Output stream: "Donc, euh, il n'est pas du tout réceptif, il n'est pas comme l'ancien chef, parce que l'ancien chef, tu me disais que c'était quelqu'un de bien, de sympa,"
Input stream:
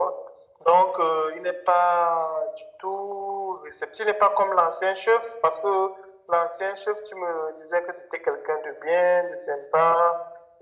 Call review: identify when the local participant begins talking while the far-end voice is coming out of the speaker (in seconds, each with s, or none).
none